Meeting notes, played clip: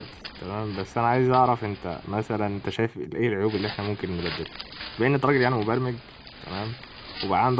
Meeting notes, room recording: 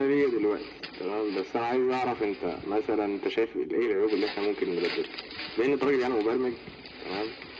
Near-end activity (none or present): none